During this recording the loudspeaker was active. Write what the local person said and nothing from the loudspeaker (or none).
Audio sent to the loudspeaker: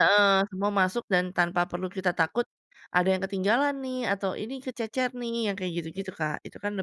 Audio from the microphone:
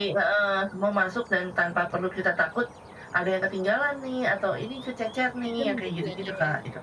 Adem gitu ya, Kak, ya.